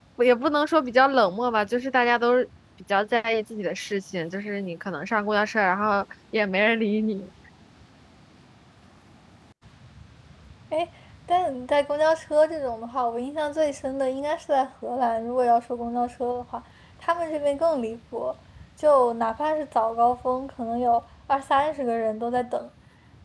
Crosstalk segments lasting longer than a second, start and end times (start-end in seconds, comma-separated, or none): none